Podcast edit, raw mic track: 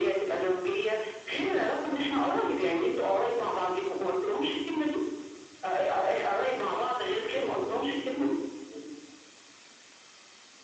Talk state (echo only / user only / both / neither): echo only